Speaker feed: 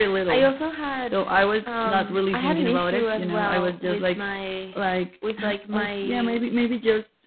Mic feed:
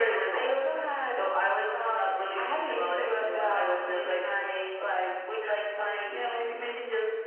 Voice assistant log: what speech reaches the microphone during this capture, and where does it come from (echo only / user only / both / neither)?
echo only